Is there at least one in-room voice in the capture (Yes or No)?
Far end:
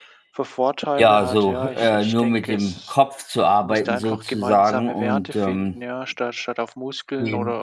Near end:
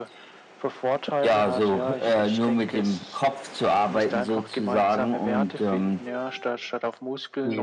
No